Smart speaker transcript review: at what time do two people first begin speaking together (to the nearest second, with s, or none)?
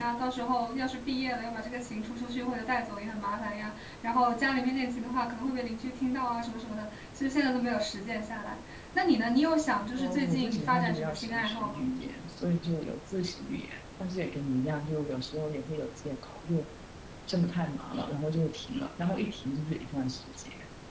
10 s